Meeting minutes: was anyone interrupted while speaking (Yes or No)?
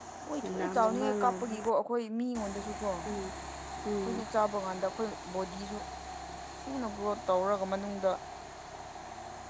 Yes